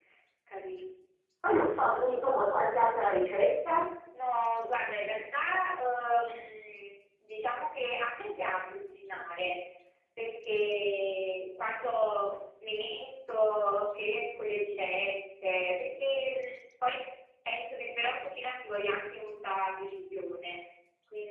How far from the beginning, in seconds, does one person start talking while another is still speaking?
none

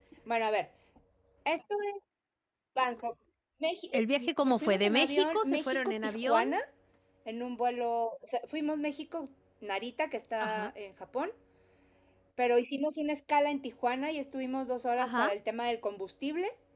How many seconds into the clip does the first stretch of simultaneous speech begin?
3.9 s

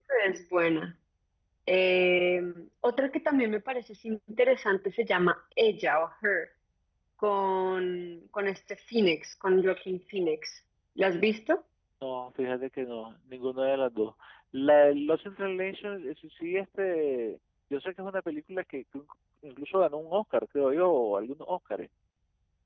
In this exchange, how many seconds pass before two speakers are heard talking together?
none

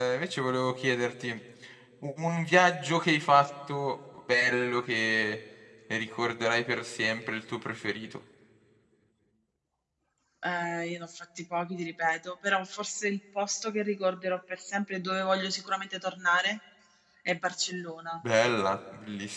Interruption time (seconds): none

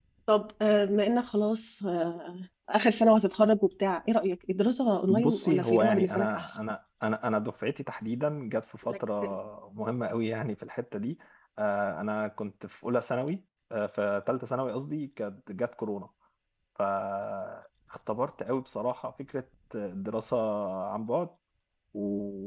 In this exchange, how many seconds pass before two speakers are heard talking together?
5.1 s

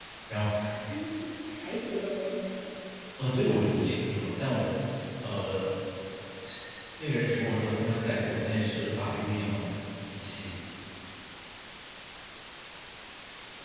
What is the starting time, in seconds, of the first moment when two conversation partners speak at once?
none

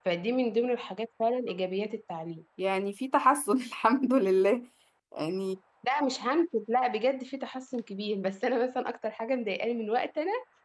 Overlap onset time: none

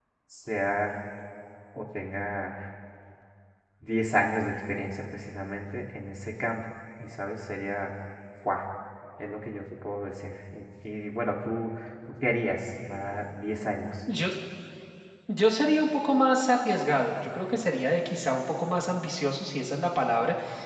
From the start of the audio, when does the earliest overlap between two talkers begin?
none

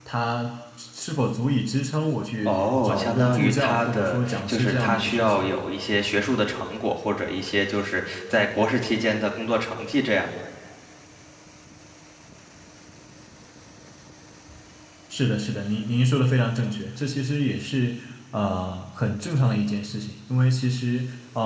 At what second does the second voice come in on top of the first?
2.5 s

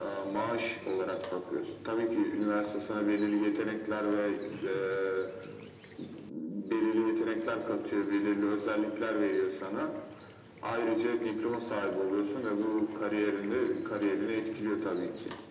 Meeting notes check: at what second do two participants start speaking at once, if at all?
none

